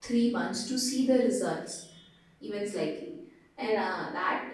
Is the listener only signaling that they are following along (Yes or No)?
Yes